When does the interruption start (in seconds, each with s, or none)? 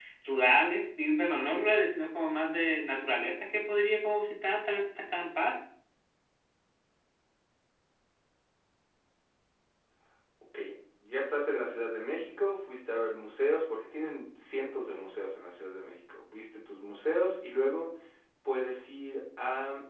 none